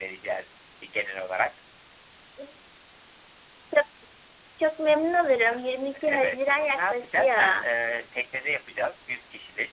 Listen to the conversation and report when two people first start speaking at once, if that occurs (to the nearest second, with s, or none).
6 s